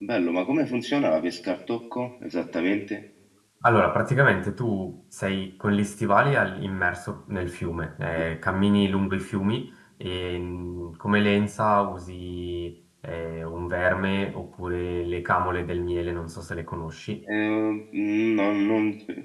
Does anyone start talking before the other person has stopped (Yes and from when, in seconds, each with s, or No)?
No